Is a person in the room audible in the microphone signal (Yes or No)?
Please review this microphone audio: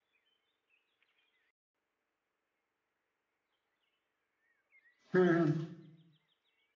Yes